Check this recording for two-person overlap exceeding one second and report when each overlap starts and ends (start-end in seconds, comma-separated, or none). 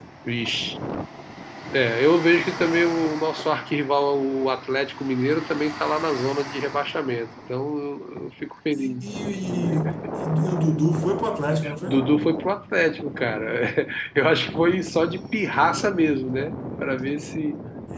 none